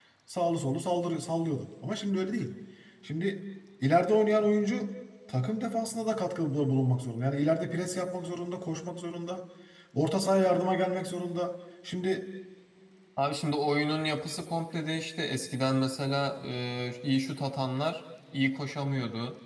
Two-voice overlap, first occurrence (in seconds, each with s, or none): none